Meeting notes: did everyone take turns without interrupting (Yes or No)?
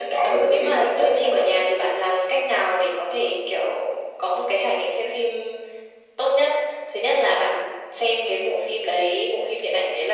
No